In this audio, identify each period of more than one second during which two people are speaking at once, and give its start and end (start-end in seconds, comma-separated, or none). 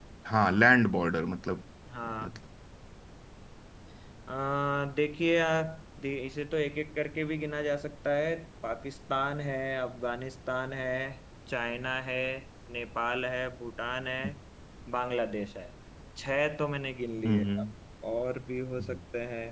none